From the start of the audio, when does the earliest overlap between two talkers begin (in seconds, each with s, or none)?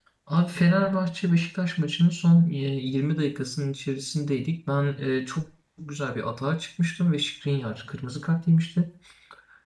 none